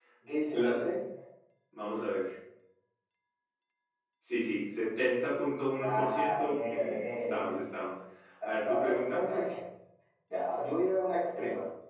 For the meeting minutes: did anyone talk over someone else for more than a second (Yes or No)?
Yes